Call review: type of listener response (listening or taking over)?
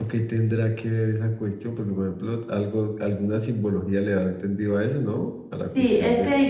taking over